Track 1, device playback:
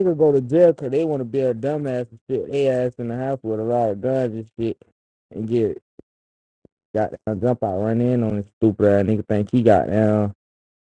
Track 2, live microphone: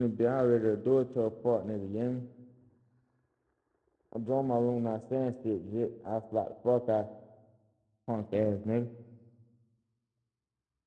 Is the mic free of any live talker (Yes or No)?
No